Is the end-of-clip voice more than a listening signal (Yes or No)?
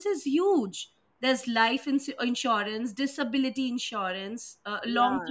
Yes